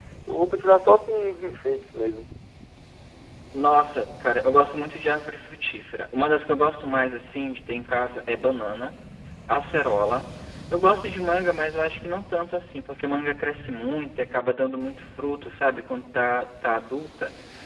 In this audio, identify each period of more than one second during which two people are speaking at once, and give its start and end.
none

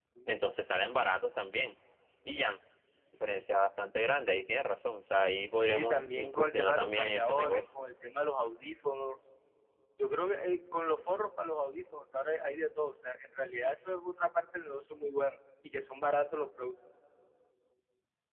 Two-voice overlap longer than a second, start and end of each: 5.6-7.6

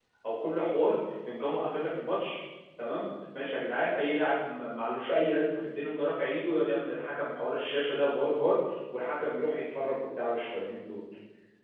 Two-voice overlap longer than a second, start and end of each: none

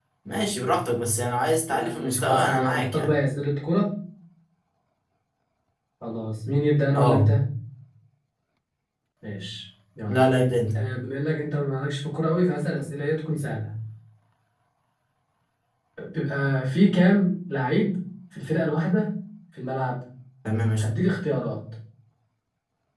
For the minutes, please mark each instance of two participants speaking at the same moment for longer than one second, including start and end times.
1.7-3.1

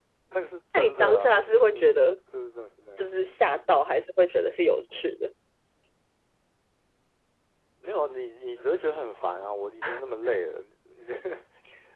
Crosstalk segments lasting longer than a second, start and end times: 0.7-2.0

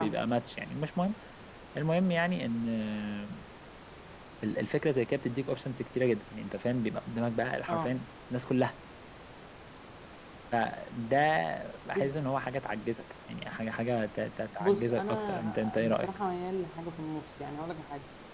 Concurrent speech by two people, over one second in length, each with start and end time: 14.6-16.1

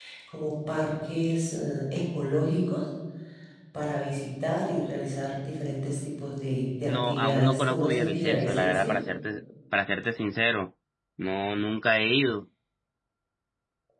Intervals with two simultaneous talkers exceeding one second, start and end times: 6.9-9.0

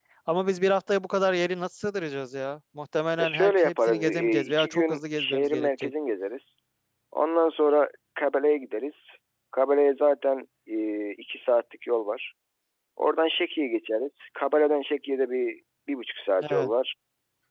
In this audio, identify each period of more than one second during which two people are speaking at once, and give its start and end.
3.2-5.9

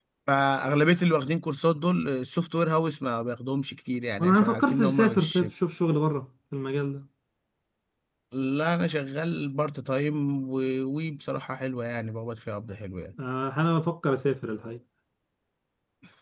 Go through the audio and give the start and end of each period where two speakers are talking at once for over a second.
4.2-5.4

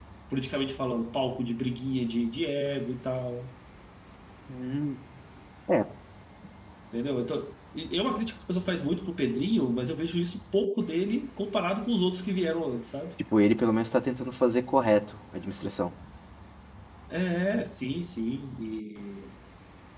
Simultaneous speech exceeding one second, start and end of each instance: none

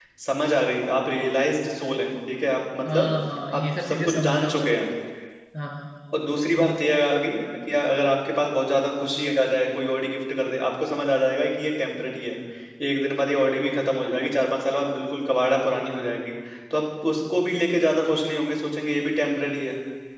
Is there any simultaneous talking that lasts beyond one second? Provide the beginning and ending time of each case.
3.5-4.8

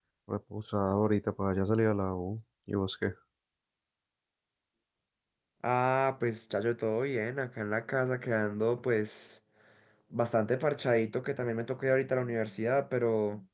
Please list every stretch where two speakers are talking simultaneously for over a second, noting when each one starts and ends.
none

